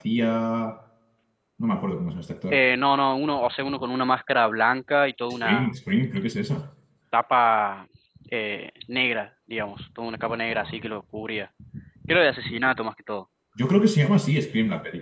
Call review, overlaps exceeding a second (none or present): none